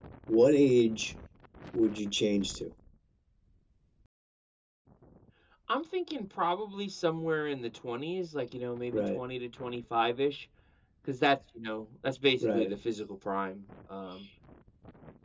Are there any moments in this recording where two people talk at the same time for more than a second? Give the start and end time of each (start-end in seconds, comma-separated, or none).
none